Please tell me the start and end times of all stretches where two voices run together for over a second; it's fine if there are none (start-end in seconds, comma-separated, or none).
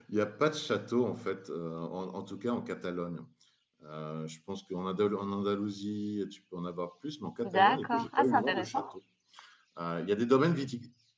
7.4-8.8